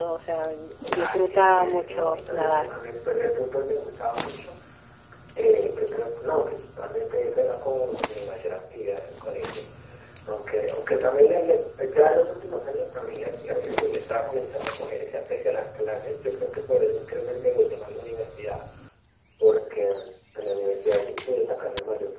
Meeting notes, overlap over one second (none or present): present